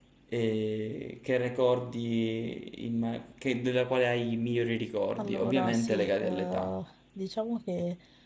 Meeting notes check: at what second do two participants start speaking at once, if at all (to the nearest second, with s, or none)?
5 s